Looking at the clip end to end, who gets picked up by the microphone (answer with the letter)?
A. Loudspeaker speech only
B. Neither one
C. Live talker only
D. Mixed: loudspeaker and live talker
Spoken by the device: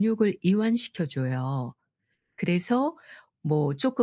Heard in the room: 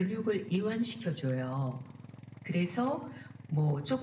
A